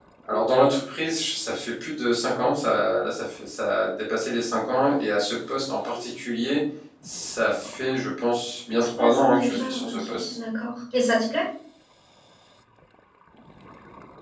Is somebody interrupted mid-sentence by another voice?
Yes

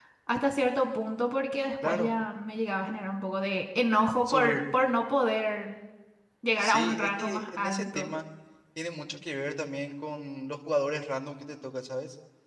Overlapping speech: Yes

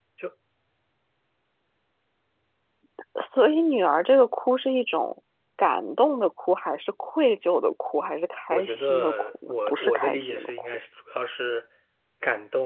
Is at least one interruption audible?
Yes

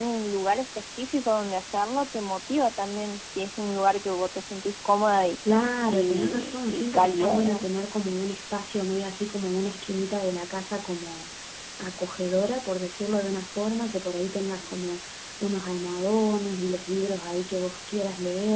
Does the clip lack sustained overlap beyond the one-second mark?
No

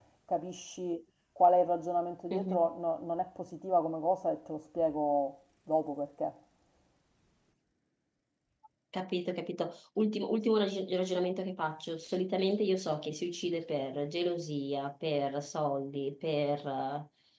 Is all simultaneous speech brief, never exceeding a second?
Yes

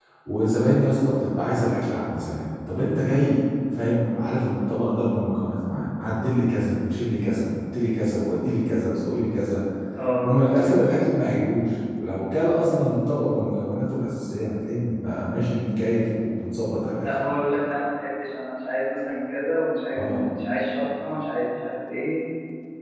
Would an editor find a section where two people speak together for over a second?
No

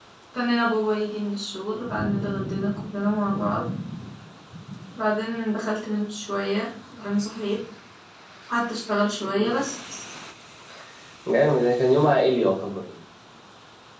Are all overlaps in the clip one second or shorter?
Yes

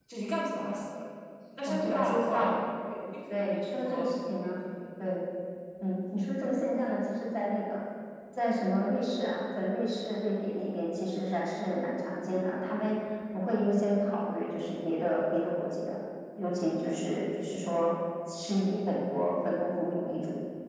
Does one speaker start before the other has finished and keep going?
Yes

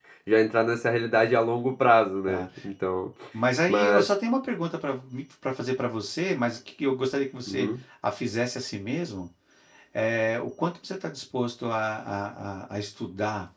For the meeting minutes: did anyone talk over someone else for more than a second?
No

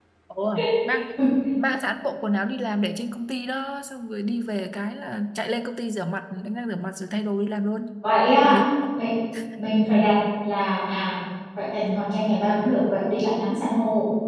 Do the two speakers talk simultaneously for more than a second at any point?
No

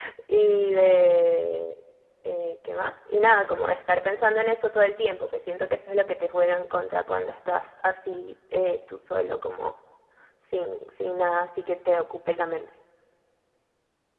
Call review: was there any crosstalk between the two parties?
No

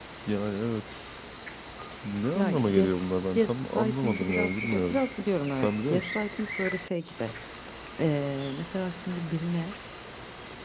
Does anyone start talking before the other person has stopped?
Yes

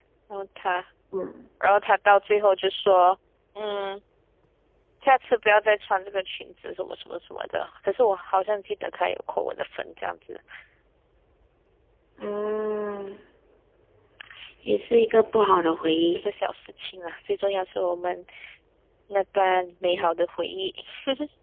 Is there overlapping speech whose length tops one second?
No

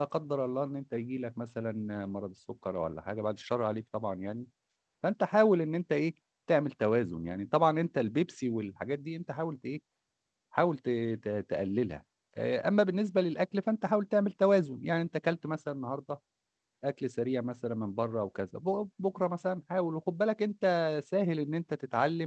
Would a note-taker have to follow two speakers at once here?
No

